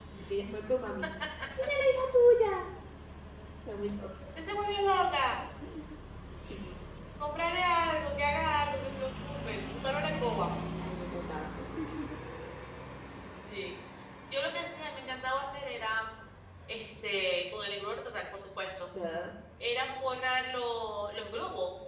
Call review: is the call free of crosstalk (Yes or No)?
Yes